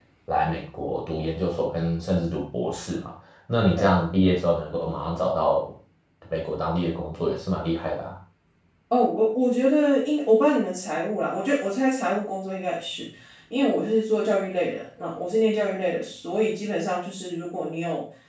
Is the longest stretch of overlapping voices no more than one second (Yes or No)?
Yes